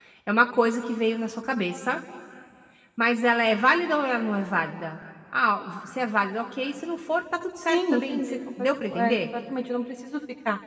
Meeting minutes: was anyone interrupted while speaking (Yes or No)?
Yes